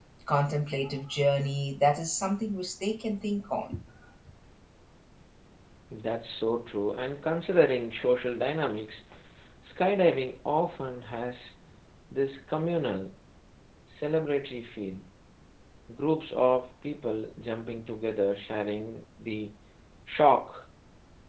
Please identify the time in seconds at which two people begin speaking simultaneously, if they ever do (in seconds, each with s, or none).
none